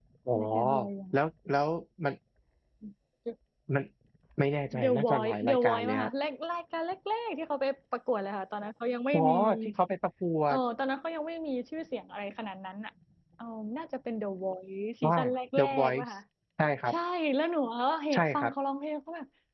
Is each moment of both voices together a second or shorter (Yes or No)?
No